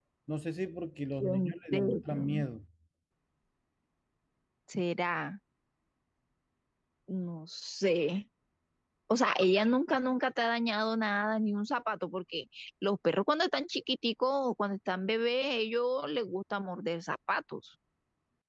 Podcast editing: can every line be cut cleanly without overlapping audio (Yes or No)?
No